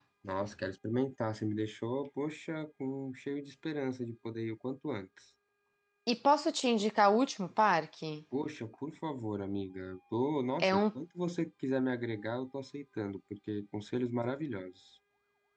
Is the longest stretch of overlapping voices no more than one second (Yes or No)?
Yes